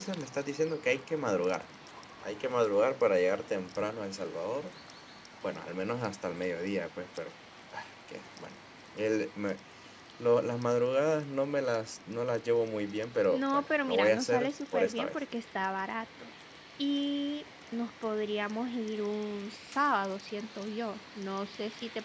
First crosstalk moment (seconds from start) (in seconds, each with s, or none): 13.3 s